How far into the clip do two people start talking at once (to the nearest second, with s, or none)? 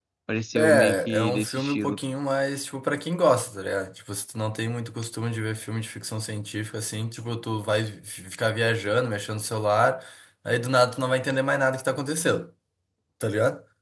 1 s